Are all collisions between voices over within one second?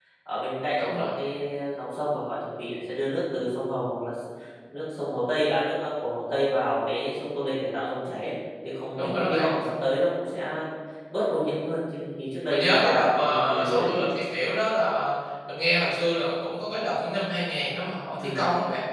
No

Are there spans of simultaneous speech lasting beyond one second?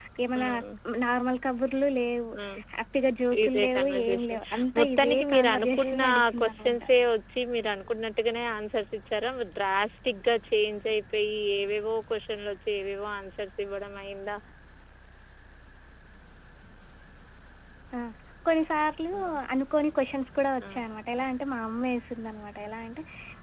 Yes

